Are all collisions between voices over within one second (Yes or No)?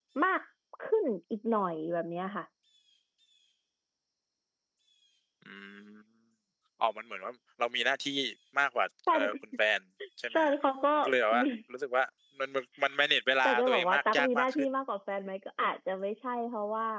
No